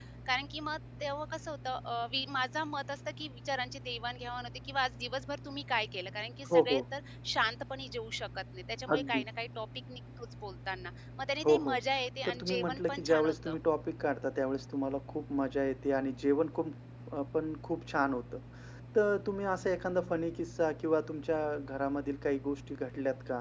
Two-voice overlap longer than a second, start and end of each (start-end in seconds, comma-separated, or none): 12.2-13.6